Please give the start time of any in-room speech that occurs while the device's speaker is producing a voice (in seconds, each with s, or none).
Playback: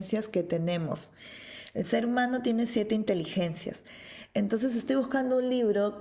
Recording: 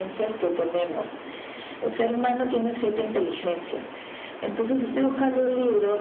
none